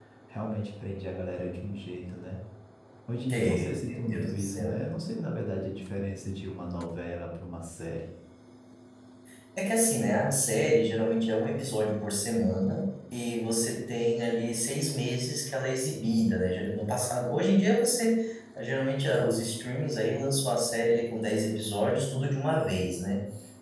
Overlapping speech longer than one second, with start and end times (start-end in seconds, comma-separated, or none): 3.3-4.8